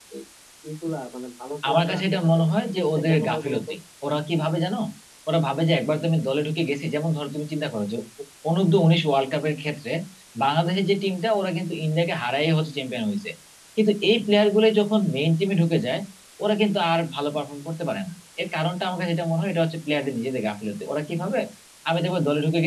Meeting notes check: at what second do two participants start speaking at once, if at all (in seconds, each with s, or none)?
1.6 s